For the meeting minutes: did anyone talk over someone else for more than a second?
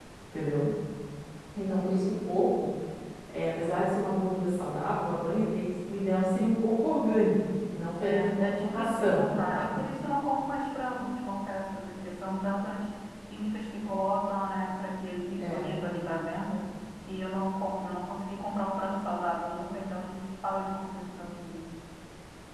Yes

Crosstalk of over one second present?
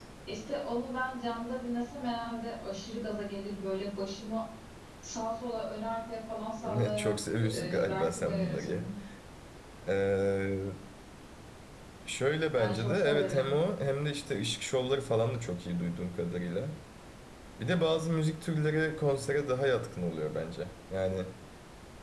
Yes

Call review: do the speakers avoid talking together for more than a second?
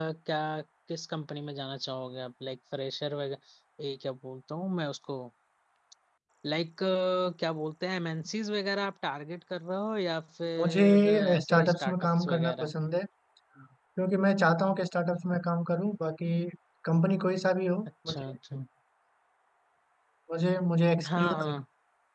No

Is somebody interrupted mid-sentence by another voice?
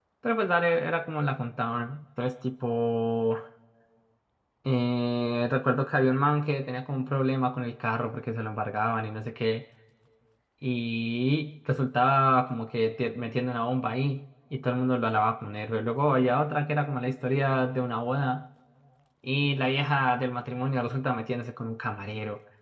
No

